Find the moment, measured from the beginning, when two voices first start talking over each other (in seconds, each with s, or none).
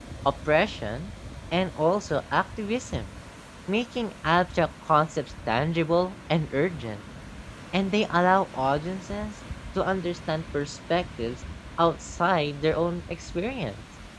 none